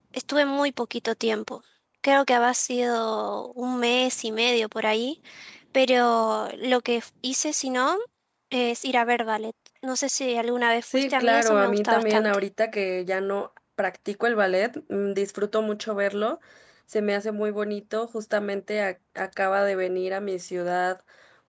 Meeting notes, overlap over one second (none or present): present